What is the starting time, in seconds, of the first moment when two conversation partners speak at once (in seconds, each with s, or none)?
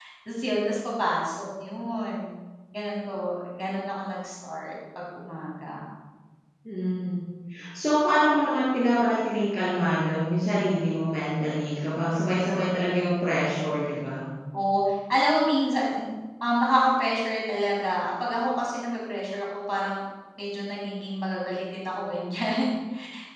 none